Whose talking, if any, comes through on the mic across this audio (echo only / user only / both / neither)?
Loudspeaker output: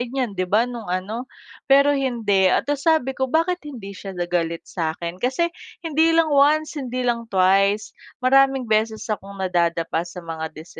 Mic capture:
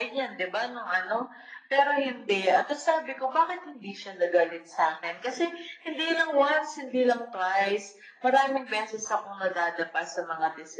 echo only